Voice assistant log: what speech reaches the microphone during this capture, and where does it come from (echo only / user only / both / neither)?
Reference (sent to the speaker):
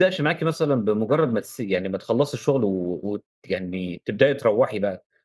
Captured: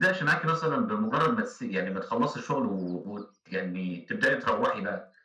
echo only